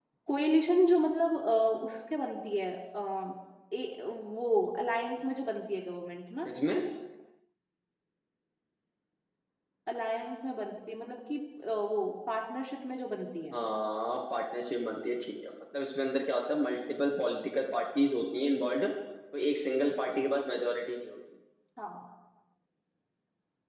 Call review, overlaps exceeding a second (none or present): none